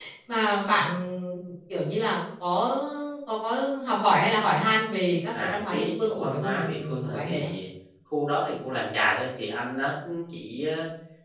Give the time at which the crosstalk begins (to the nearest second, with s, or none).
5 s